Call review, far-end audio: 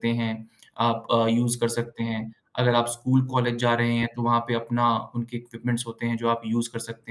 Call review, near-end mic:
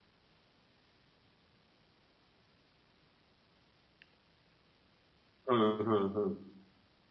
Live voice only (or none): हुँ, हुँ, हुँ।